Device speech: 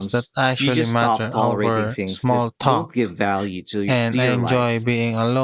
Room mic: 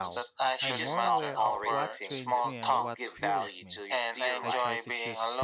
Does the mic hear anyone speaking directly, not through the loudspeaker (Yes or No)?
Yes